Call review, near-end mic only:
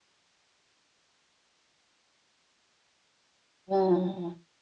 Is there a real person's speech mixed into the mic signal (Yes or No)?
Yes